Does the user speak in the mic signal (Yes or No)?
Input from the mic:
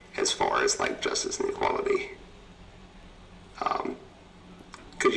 No